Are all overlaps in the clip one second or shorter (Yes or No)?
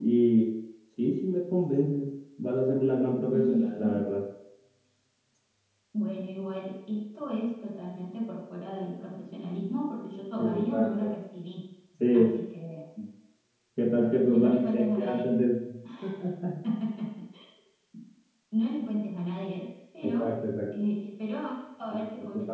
No